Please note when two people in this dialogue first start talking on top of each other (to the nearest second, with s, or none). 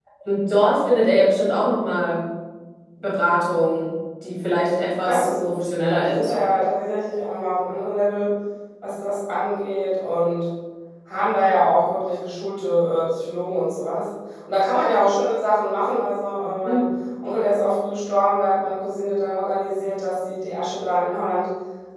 5 s